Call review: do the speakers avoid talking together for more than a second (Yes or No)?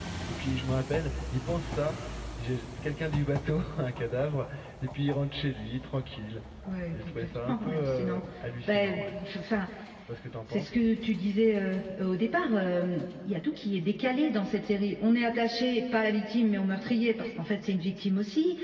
No